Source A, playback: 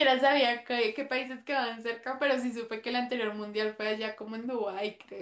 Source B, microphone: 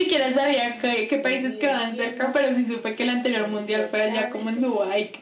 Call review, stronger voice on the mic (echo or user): echo